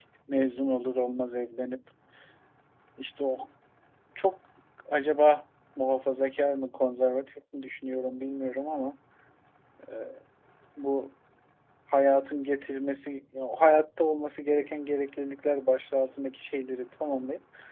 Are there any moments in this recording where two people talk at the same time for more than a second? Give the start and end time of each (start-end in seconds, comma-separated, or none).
none